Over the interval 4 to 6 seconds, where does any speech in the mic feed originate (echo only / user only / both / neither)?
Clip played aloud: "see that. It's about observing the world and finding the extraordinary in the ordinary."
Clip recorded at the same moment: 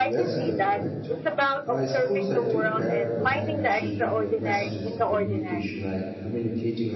both